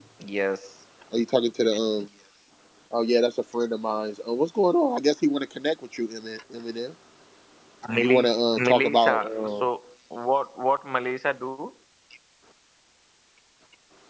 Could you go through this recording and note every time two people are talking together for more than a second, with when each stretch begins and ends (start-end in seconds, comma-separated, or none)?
8.0-9.6